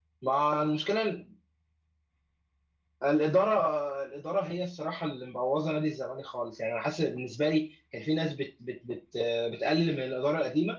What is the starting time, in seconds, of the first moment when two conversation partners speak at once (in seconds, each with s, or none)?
none